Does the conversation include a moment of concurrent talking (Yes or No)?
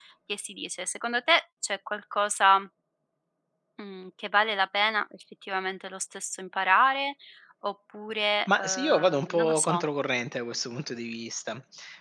Yes